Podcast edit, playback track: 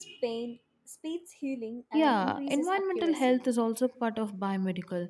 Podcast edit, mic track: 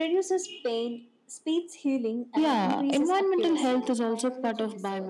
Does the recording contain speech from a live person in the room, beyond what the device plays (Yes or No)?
Yes